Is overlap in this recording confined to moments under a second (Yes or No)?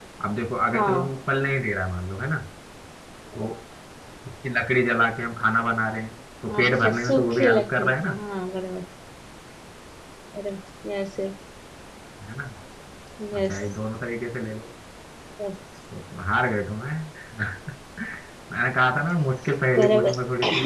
No